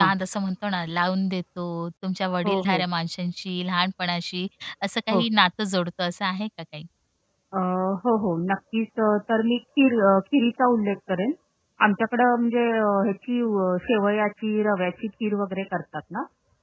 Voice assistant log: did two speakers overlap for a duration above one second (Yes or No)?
No